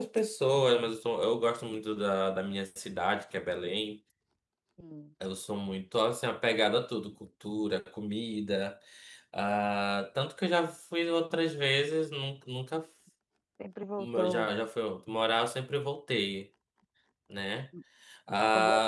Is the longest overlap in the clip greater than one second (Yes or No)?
No